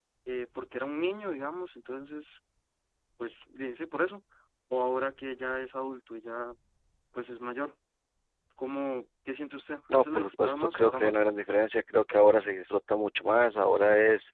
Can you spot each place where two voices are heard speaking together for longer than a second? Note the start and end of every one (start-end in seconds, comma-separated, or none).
9.9-11.2